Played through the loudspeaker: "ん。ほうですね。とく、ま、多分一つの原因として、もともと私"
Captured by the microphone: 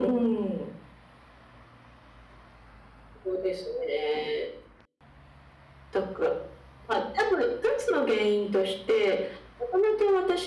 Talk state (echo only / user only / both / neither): echo only